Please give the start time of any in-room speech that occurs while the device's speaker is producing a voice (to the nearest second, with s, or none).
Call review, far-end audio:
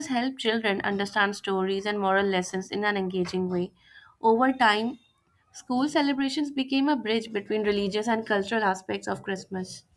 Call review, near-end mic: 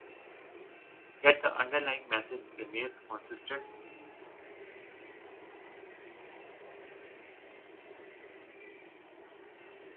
1 s